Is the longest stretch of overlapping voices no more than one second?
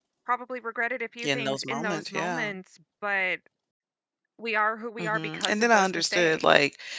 No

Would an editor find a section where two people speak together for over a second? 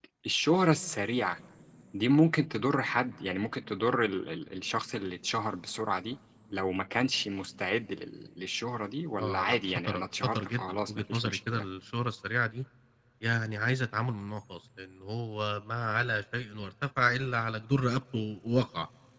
Yes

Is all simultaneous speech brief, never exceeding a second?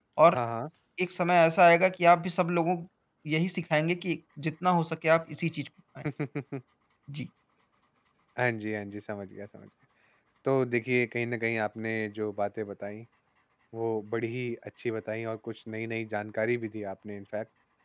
Yes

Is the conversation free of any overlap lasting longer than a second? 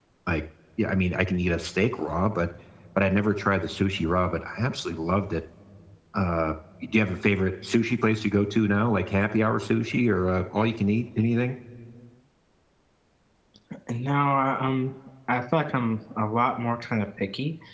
Yes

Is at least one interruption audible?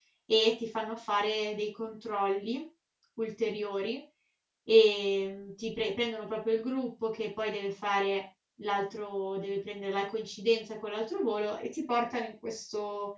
No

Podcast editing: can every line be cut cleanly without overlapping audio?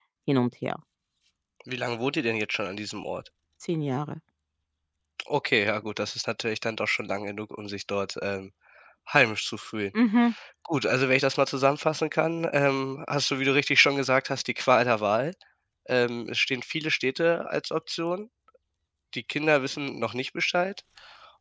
Yes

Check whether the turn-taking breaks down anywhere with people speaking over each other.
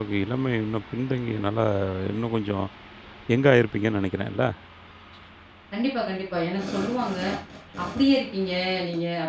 No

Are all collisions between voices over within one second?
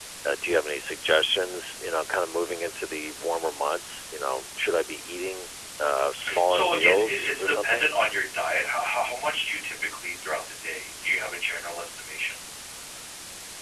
No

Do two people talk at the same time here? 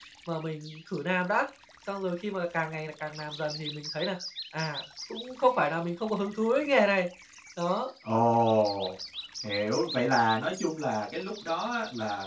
No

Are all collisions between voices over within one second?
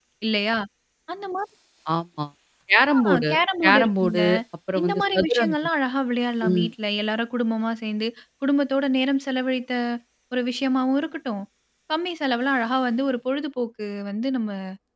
No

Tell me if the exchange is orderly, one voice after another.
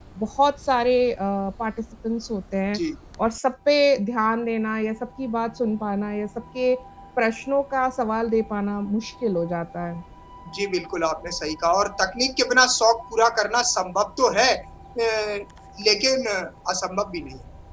Yes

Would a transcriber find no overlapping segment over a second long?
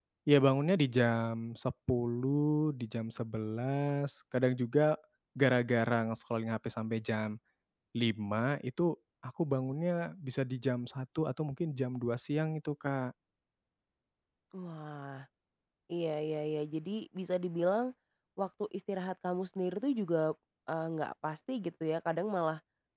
Yes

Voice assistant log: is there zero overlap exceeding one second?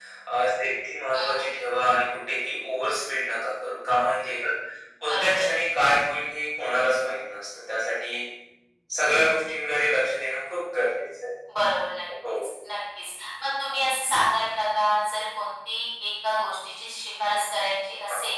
Yes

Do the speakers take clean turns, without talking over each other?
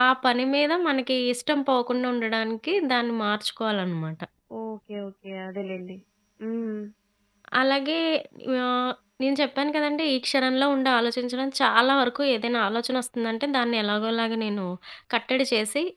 Yes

